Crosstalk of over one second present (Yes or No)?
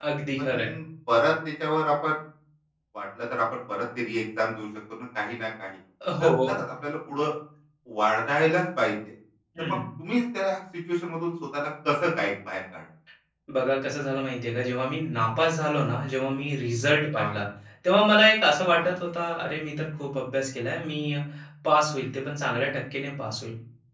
No